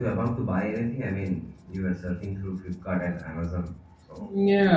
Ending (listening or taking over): taking over